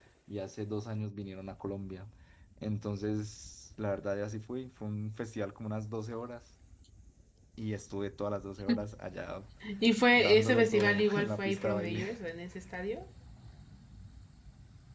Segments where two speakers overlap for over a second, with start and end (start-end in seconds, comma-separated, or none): 10.2-12.1